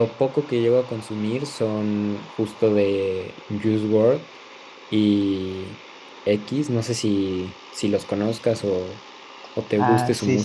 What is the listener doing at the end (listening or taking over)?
taking over